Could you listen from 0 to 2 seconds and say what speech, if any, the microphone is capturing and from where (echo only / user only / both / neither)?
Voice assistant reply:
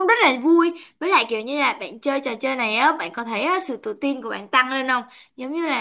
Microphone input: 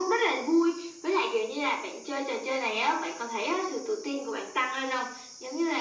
echo only